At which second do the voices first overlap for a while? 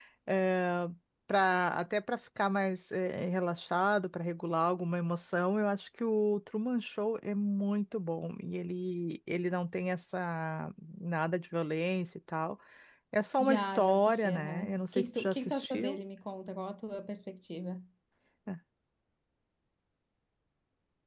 13.4 s

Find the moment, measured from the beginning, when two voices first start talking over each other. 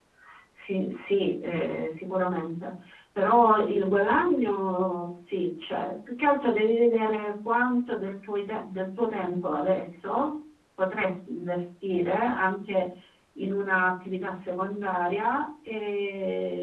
none

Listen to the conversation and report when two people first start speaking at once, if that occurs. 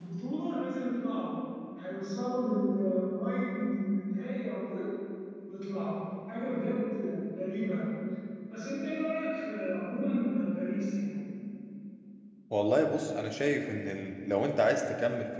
none

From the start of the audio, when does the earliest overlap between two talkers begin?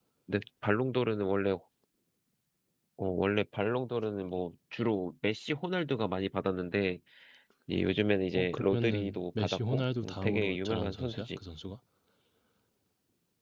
8.3 s

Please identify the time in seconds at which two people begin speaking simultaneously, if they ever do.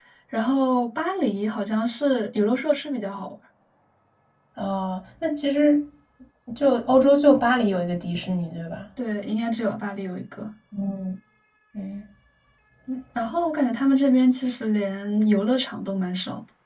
none

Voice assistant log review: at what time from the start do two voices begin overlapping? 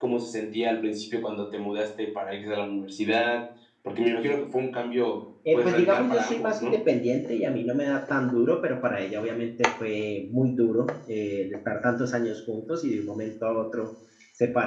5.5 s

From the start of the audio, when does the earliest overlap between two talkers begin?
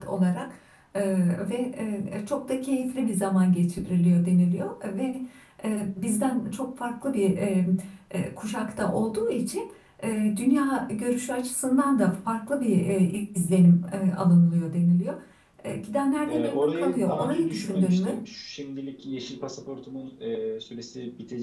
16.3 s

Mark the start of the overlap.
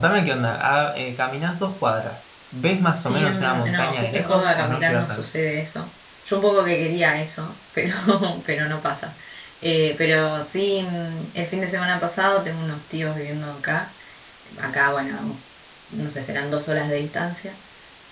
3.0 s

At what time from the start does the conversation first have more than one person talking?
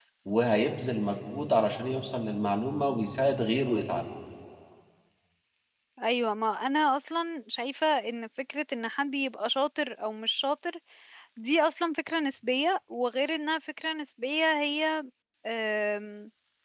none

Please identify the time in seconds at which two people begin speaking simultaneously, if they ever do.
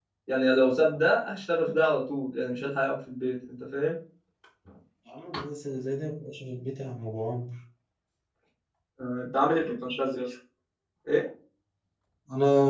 none

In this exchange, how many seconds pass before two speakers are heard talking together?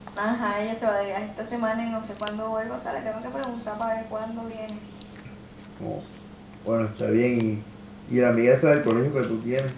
none

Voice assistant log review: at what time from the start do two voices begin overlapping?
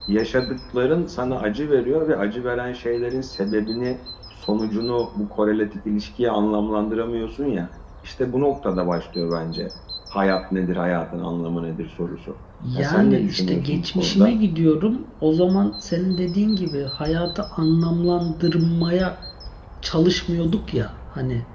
12.6 s

